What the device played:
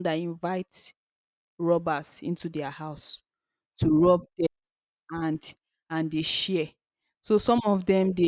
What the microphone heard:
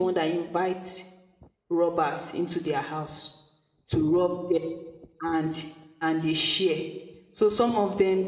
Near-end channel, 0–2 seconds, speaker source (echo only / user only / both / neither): echo only